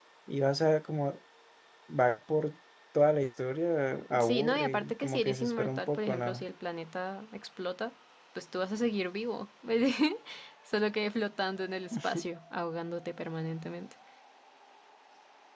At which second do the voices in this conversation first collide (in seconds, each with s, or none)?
4.2 s